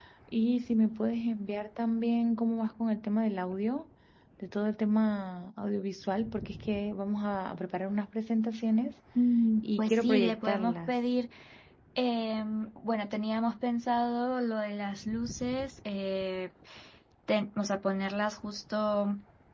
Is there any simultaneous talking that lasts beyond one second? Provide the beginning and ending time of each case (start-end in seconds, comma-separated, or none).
9.6-11.0